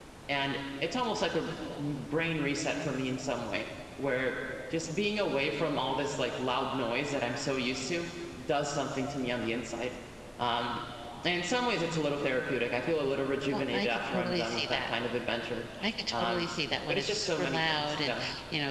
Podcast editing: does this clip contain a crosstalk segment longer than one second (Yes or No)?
Yes